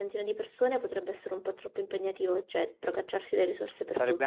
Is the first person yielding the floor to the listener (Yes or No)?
Yes